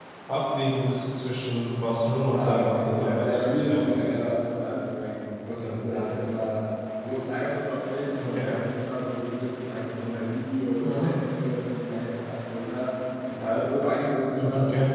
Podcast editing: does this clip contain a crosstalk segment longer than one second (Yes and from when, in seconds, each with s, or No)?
Yes, from 2.3 s